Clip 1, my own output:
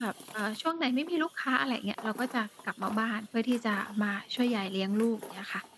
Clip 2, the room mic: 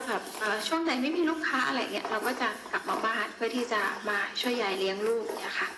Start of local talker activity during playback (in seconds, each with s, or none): none